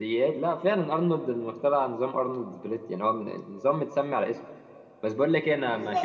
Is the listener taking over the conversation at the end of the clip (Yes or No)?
No